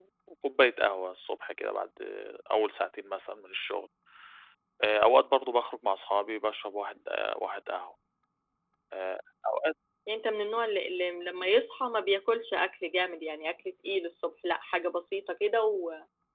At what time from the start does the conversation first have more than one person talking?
none

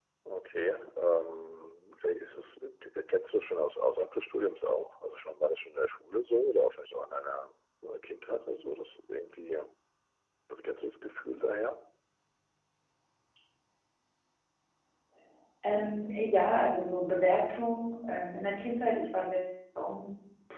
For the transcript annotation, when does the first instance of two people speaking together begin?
none

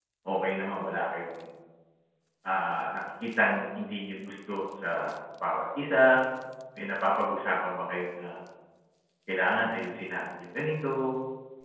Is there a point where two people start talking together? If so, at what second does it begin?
none

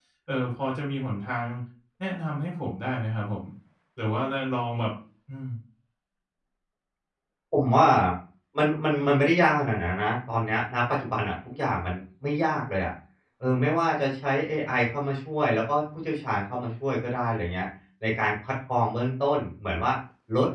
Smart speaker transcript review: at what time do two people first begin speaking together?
none

